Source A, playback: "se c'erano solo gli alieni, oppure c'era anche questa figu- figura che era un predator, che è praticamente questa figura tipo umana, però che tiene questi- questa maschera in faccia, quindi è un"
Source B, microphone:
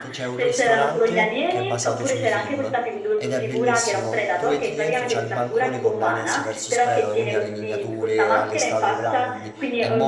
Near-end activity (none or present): present